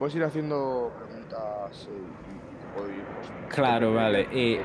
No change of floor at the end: No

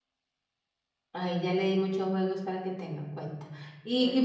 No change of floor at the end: Yes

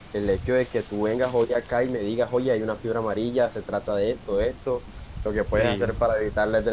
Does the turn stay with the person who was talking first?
Yes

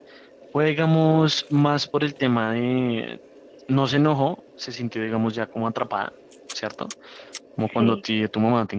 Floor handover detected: No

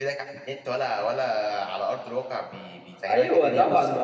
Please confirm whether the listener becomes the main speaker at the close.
Yes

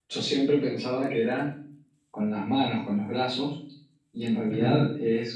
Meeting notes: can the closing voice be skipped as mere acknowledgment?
Yes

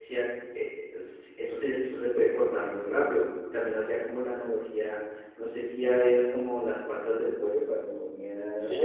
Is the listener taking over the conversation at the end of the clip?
Yes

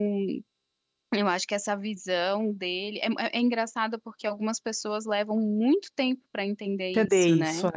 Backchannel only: No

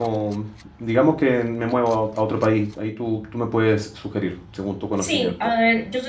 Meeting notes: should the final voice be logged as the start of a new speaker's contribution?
Yes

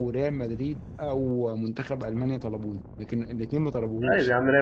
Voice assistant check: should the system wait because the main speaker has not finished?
No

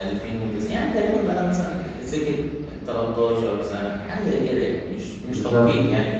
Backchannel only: Yes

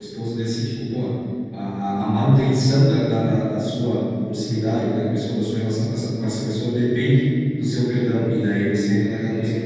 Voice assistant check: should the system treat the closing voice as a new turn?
No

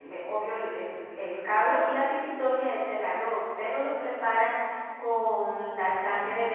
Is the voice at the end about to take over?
No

